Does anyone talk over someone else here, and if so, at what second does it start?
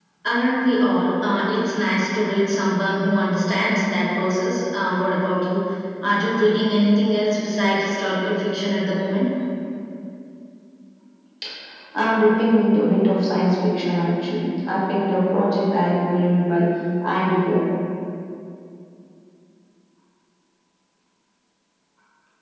none

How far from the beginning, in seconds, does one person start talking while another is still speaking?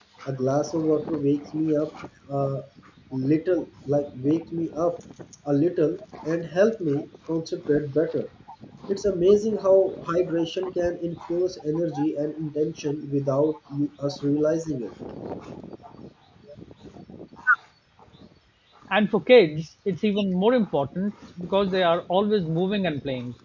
none

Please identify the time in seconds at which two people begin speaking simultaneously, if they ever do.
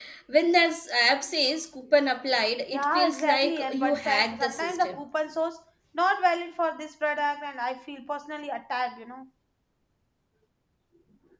2.7 s

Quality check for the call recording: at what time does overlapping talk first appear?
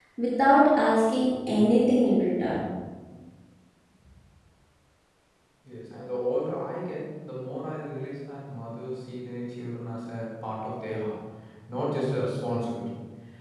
none

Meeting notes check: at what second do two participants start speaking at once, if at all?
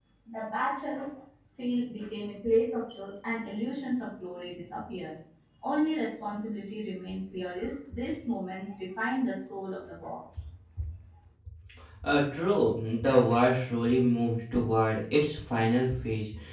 none

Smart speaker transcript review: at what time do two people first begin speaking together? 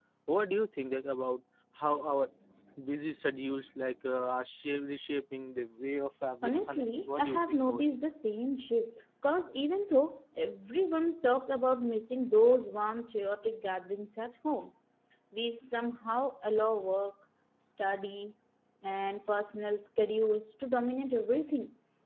6.4 s

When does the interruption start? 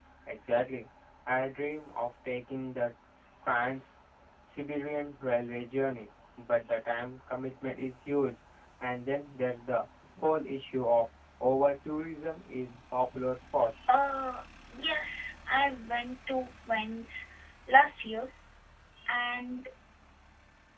none

